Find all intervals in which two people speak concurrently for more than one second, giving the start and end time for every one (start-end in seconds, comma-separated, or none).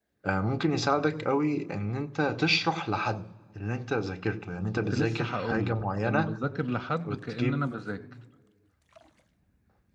4.9-6.3